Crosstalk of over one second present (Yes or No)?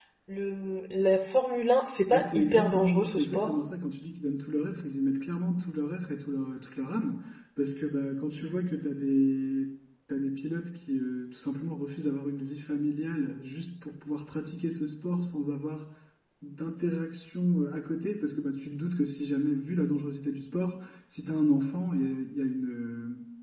Yes